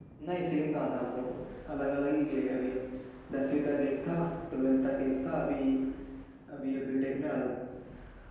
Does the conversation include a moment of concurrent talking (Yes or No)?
No